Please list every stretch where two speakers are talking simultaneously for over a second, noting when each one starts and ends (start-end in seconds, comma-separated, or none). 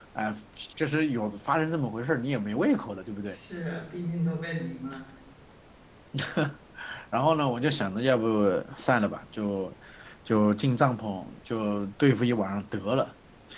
none